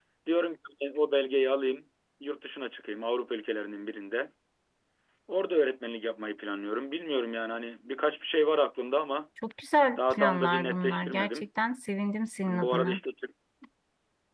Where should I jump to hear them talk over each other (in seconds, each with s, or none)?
10.0 s